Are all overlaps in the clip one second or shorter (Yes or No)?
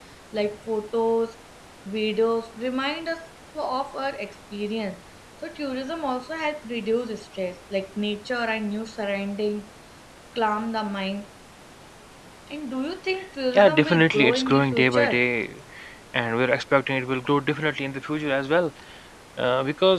No